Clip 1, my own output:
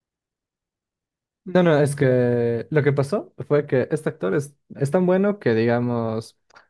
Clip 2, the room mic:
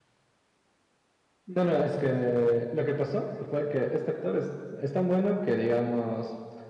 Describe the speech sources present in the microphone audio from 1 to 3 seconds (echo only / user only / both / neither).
echo only